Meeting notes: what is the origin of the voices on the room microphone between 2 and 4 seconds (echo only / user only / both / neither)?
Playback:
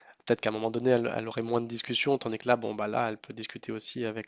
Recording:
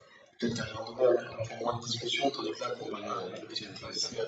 both